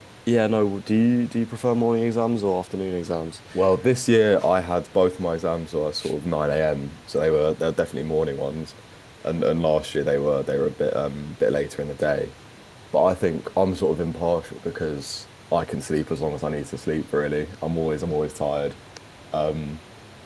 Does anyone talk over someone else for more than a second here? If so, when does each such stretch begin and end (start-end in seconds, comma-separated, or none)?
none